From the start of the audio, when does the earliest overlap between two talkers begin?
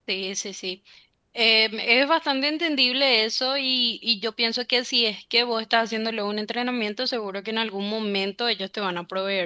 none

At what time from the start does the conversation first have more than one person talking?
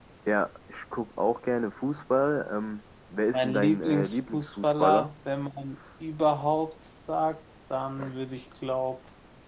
3 s

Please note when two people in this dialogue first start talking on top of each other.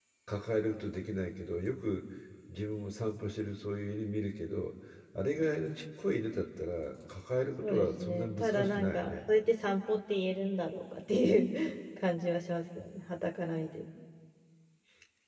8 s

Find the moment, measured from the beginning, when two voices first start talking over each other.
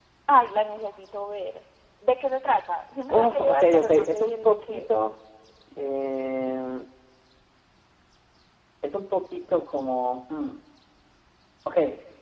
3 s

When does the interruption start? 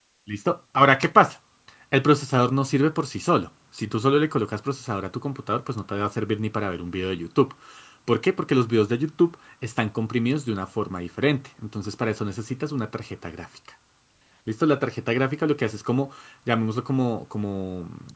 none

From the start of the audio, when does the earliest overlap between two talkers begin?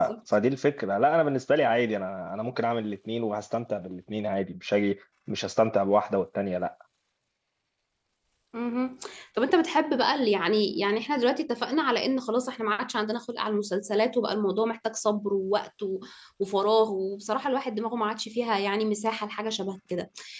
none

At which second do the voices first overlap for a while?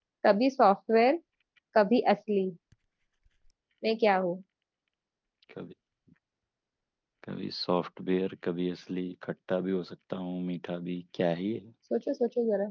none

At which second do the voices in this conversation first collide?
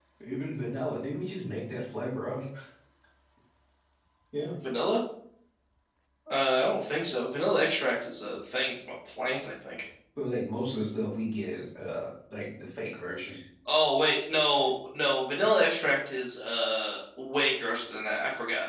none

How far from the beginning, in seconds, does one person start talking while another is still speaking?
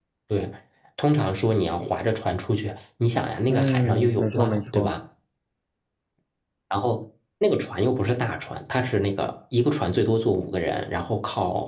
3 s

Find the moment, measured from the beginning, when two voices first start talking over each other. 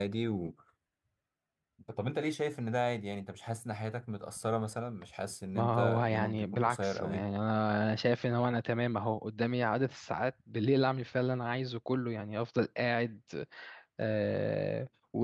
6 s

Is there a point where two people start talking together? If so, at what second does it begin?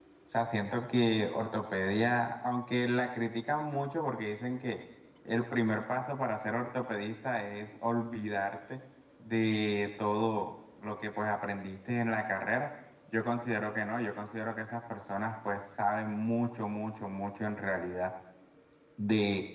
none

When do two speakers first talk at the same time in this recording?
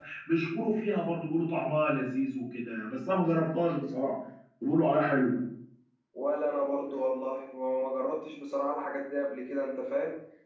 none

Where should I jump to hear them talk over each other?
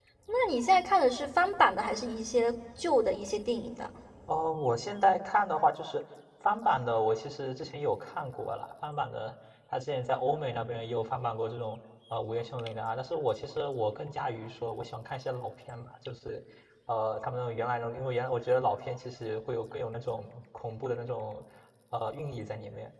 none

